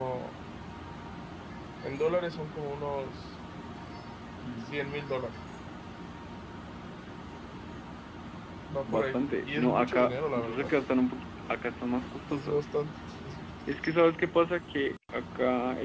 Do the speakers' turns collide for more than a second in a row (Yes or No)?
Yes